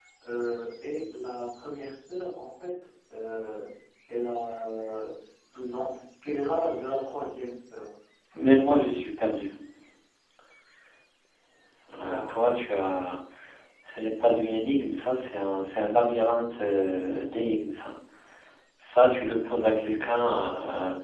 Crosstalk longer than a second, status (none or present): none